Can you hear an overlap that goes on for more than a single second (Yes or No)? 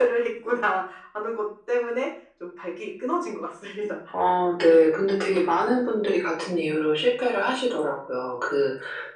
No